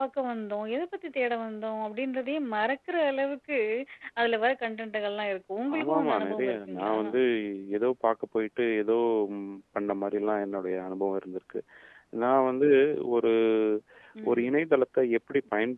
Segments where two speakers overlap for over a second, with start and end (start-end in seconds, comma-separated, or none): 5.8-7.0